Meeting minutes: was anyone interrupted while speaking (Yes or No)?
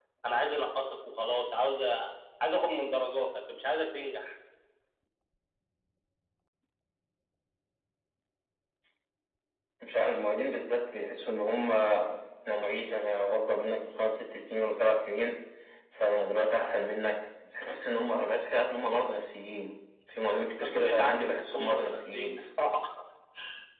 Yes